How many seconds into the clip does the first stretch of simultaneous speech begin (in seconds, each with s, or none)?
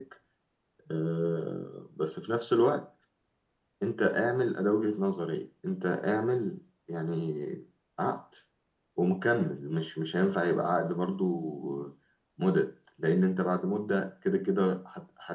none